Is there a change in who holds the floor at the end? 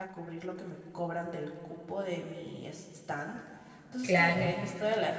No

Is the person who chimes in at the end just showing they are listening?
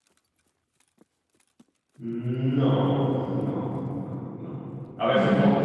Yes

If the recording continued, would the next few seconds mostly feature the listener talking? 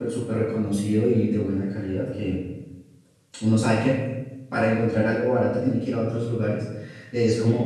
Yes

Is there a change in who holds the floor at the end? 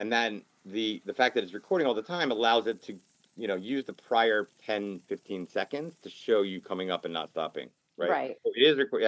No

